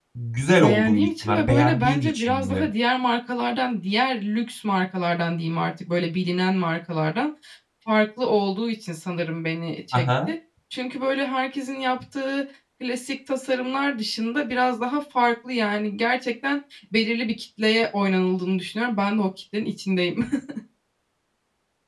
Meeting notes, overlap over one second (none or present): present